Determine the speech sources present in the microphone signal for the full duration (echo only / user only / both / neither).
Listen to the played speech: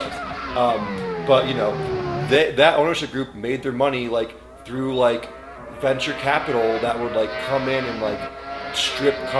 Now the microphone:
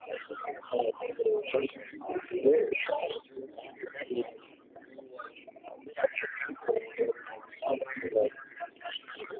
echo only